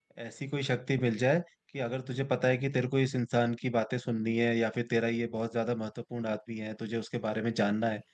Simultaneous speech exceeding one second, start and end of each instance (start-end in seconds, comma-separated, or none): none